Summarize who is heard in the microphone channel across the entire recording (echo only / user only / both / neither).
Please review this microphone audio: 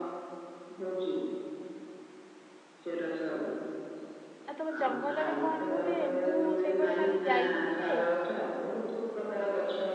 both